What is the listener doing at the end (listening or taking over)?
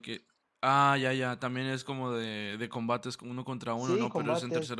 taking over